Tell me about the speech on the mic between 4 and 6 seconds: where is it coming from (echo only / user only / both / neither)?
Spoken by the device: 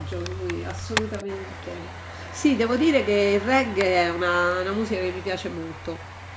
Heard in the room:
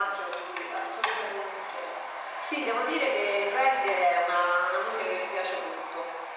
echo only